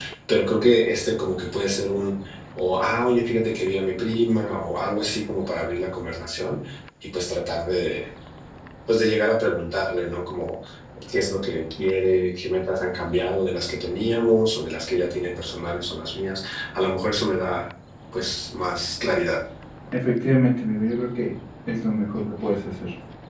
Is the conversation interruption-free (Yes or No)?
Yes